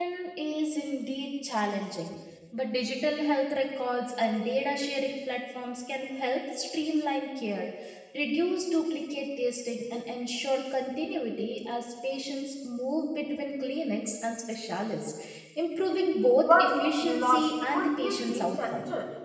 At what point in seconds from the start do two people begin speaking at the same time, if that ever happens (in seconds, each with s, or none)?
16.5 s